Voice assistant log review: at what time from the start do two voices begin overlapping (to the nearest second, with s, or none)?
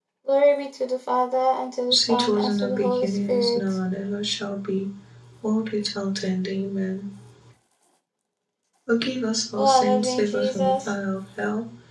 2 s